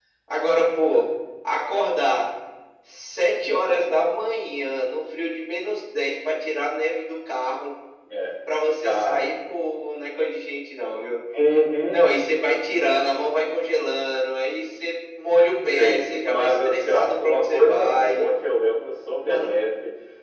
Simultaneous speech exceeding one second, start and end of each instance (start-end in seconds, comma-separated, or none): 15.6-18.3